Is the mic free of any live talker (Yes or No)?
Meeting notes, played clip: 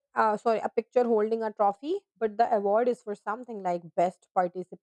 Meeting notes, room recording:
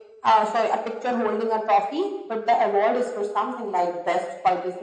Yes